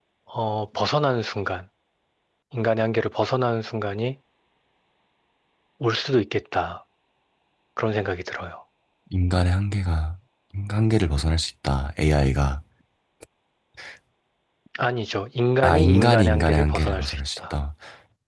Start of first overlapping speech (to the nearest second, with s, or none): 16 s